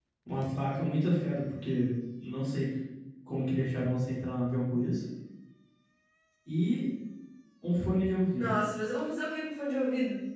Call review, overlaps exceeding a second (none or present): none